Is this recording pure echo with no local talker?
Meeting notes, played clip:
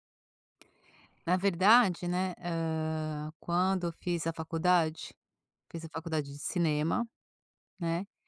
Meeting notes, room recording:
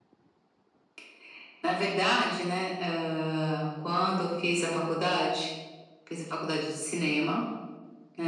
Yes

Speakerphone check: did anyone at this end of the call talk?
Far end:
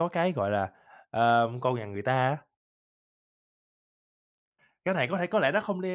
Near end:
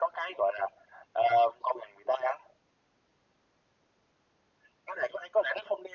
No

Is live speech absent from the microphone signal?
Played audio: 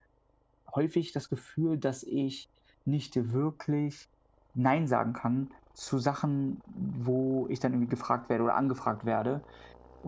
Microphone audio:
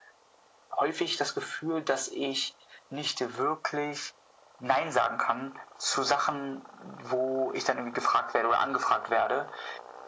Yes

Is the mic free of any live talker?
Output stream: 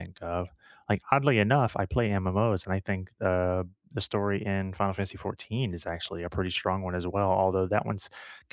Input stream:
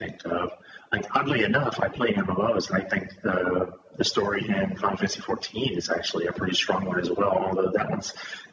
Yes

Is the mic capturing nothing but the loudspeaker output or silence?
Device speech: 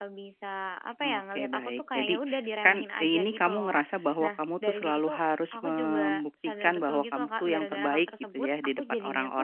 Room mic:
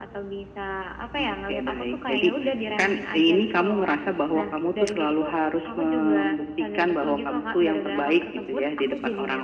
Yes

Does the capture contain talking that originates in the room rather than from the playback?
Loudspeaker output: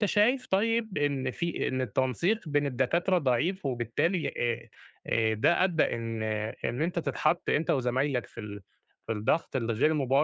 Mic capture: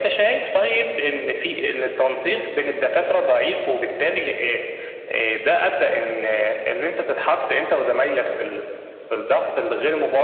No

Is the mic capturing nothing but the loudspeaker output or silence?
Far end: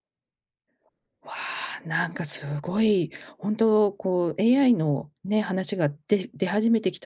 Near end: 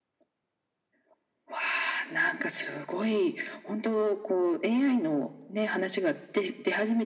Yes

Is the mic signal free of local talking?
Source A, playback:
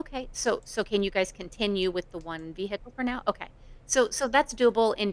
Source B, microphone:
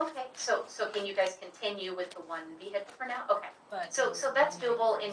No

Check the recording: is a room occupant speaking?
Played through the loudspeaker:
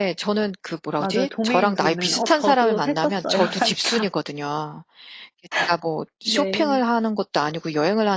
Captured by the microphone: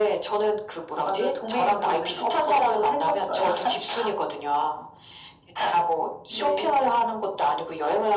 No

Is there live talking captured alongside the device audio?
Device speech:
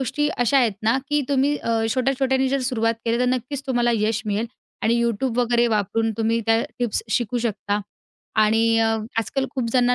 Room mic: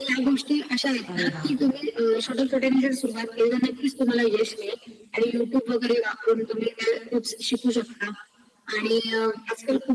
Yes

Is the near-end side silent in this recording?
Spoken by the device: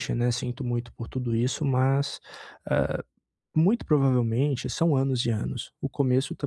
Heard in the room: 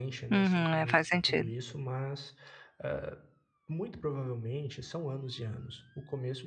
No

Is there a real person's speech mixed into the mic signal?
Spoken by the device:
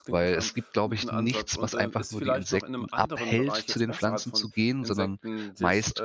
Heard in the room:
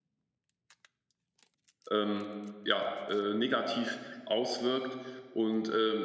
Yes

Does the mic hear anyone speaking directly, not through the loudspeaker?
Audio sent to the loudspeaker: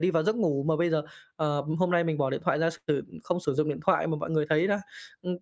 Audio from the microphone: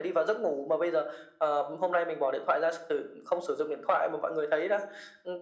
No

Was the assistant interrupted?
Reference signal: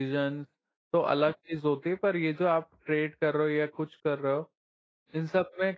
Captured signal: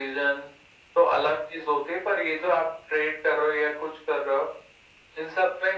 No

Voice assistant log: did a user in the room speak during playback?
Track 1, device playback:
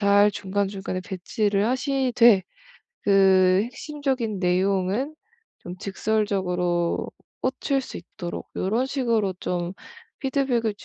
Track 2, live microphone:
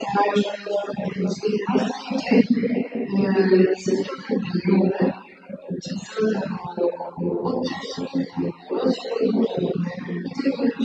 No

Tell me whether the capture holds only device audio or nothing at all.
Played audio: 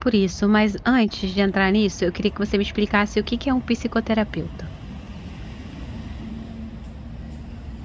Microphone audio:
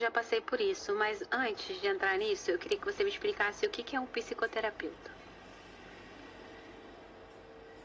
Yes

